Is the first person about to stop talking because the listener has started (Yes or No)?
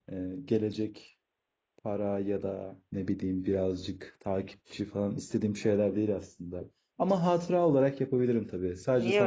Yes